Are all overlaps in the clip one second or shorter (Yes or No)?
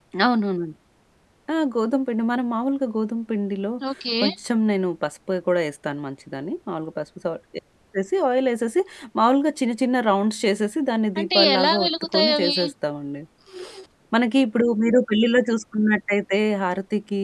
No